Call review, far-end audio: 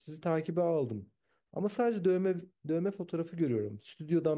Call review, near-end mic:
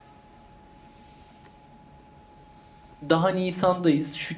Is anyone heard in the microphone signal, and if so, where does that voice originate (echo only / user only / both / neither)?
user only